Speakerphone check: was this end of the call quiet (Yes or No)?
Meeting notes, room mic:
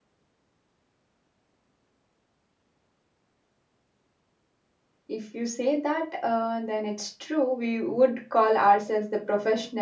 No